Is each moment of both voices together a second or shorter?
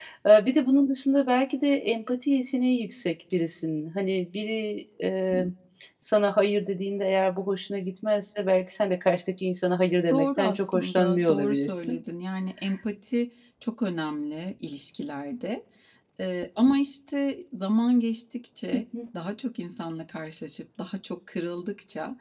No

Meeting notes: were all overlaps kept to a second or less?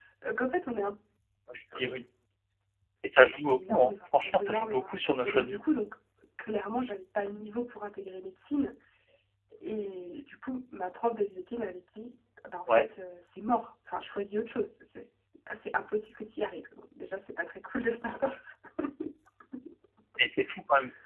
No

